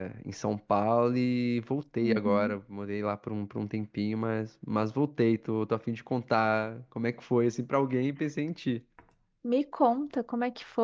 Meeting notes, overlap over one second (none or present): none